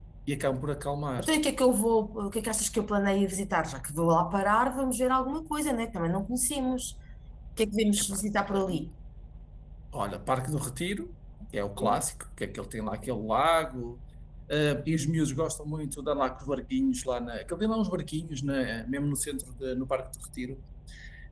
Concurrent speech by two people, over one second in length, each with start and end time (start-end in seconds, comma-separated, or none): none